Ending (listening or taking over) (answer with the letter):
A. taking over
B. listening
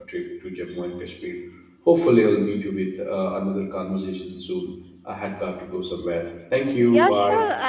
A